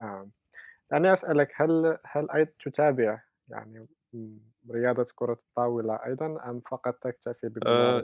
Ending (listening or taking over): taking over